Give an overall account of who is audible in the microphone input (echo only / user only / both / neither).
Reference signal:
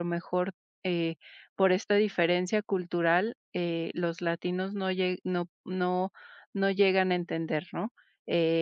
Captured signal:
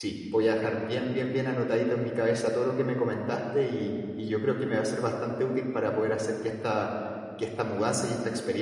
user only